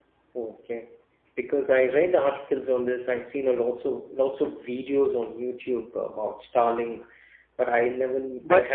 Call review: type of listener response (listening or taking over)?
taking over